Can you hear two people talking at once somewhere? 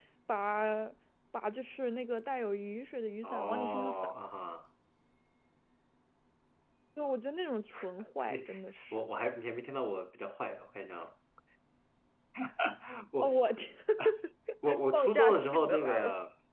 Yes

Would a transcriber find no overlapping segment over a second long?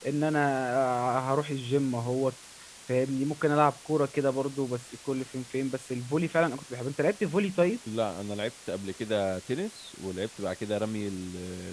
Yes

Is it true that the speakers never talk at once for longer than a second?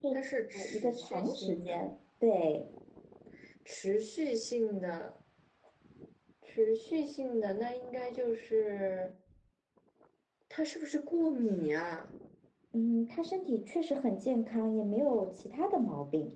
No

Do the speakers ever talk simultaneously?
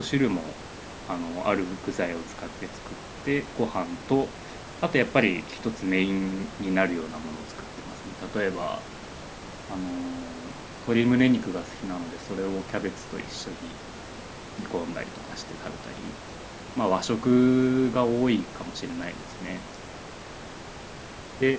No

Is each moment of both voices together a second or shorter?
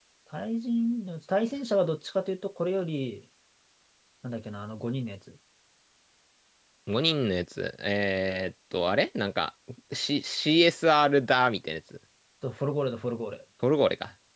Yes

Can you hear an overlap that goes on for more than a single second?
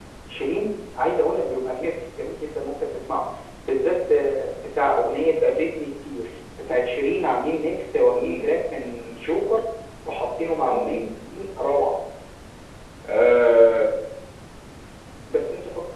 No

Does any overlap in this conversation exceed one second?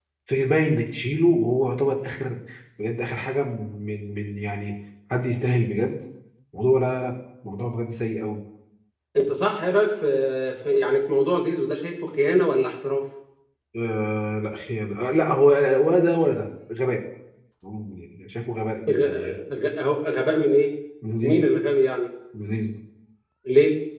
No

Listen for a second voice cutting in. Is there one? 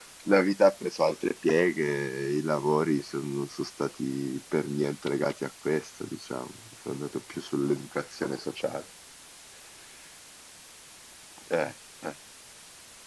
No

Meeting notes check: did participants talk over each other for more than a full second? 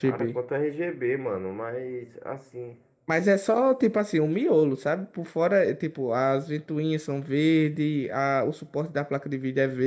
No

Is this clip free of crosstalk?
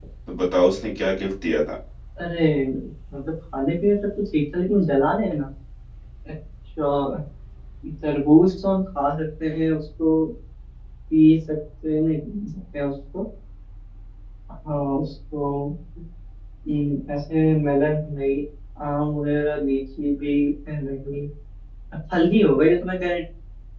Yes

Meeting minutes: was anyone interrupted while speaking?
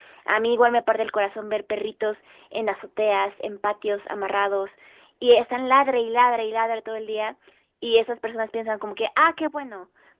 No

